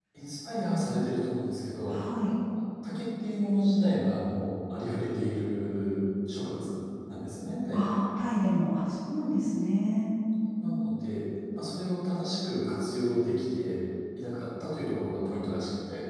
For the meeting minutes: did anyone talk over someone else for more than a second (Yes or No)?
No